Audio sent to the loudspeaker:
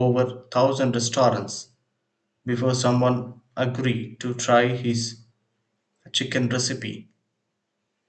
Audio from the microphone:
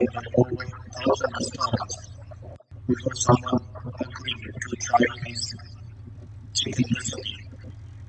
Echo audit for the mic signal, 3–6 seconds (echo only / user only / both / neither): echo only